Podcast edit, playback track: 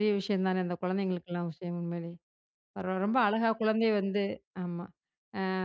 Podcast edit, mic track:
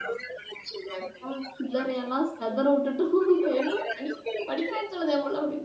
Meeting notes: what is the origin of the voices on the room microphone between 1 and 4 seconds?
both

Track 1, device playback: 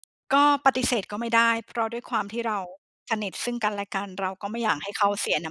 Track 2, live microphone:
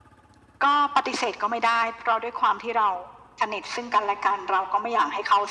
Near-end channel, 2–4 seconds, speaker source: echo only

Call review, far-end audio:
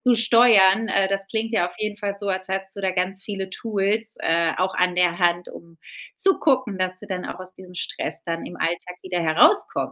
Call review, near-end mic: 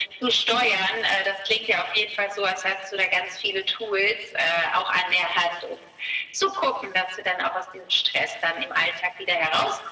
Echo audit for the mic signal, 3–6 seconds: echo only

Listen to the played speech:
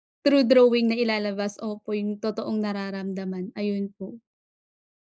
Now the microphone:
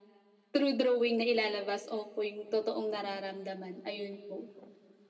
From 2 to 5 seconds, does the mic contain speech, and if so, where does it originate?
echo only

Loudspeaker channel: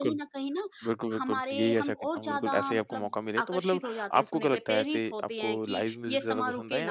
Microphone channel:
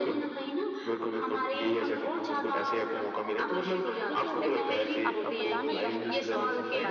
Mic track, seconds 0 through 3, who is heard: echo only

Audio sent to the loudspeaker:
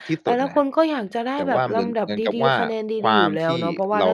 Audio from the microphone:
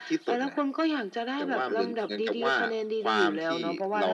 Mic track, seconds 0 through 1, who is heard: echo only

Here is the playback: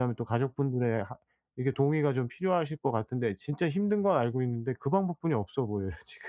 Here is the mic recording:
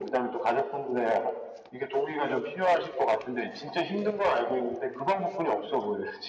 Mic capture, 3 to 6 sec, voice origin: echo only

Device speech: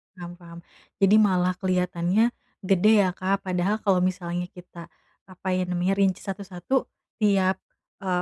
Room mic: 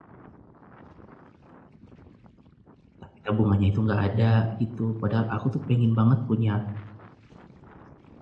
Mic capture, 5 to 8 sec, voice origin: user only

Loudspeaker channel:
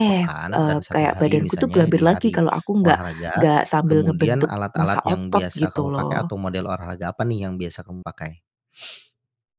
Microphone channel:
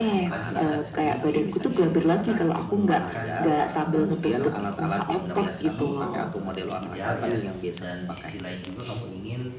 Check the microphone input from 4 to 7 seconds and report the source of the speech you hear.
both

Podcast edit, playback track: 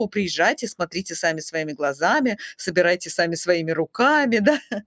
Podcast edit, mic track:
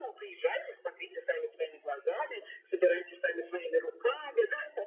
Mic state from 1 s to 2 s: echo only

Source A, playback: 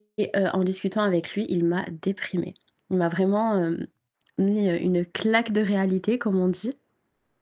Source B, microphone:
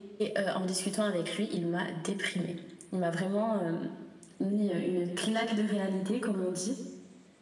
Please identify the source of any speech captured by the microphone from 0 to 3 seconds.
echo only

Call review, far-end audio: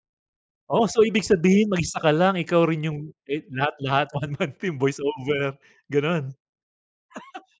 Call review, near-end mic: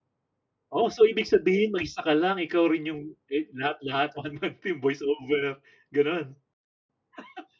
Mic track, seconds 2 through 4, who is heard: echo only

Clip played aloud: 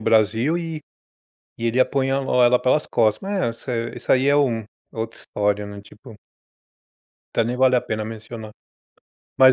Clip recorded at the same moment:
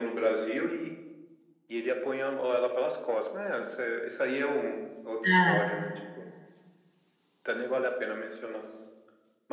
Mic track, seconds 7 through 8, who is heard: echo only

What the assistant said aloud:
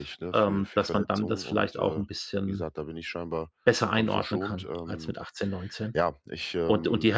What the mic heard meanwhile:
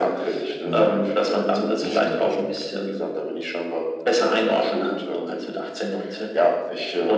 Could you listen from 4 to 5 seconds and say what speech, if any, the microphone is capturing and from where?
echo only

